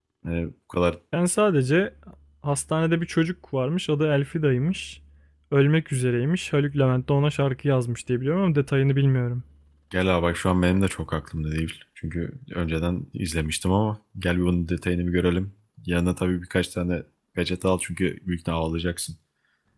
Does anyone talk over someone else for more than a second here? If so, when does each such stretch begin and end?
none

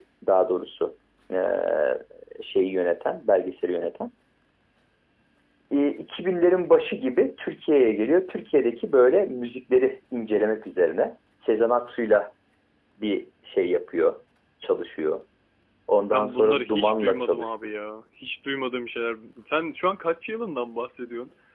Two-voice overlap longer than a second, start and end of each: 16.1-17.5

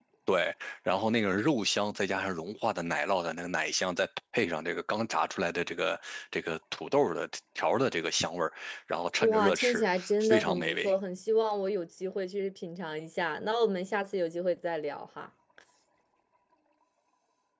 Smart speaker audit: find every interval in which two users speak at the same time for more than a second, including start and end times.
9.2-10.9

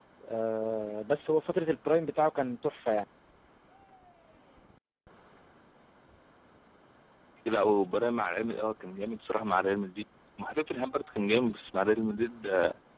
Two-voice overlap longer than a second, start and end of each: none

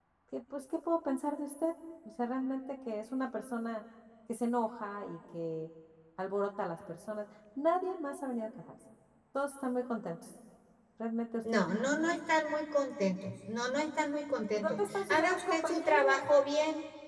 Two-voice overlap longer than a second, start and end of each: 14.6-16.2

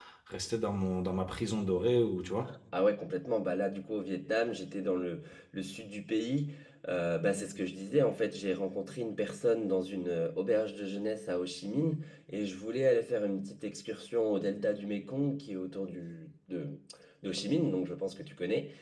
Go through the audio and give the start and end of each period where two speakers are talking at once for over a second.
none

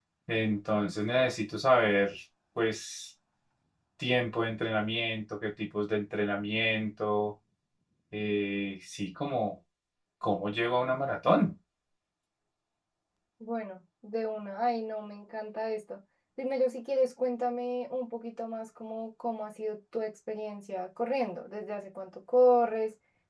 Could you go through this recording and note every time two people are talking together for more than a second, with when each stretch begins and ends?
none

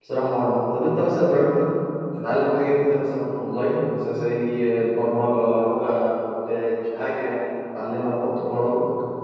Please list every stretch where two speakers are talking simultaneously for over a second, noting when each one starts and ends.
none

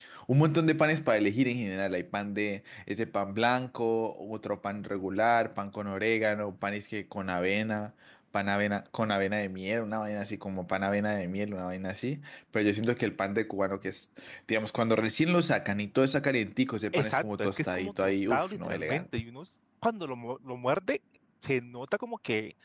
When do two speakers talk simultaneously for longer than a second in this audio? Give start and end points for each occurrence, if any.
16.9-19.1

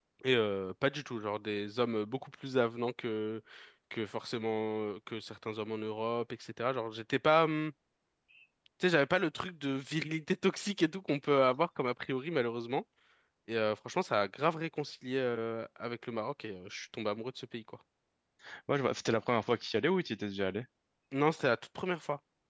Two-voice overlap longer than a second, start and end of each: none

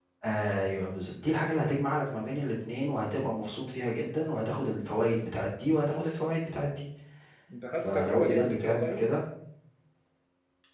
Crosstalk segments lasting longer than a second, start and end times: 7.8-9.1

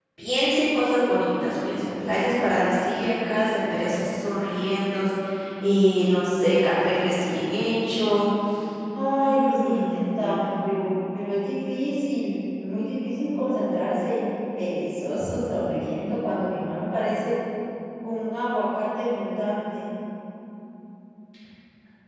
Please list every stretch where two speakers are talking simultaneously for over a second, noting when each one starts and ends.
9.2-10.5

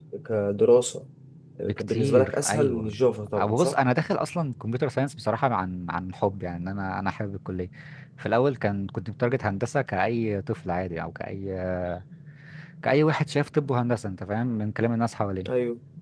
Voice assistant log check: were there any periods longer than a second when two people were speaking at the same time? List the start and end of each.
1.6-2.9

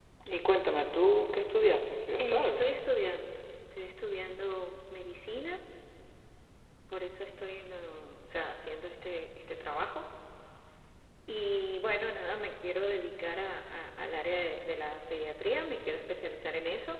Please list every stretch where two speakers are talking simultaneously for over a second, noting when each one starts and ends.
none

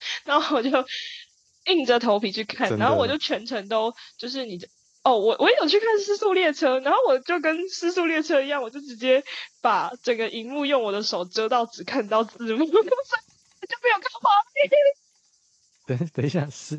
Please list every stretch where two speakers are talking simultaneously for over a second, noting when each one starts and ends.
none

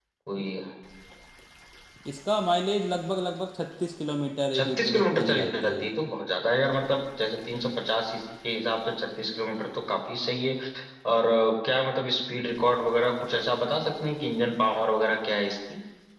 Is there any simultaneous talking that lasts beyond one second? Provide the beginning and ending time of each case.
4.6-5.9

